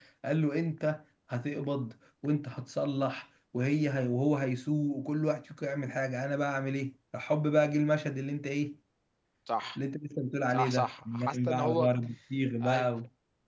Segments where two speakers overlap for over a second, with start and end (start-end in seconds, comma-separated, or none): 10.5-11.9